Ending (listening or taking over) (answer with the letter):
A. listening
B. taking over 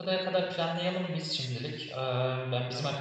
A